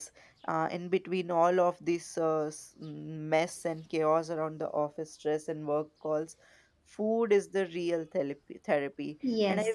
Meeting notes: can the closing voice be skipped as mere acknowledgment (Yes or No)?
No